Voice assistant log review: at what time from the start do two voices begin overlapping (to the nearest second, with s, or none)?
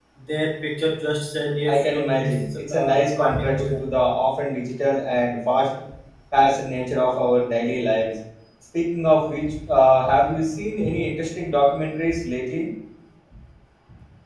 2 s